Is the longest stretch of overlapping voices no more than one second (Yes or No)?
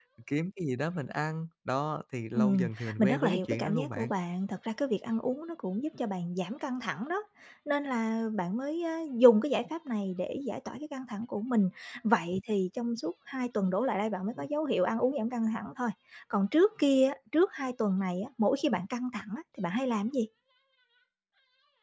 No